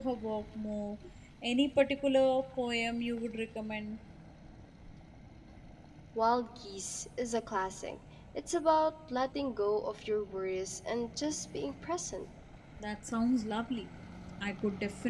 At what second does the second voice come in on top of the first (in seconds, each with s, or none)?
none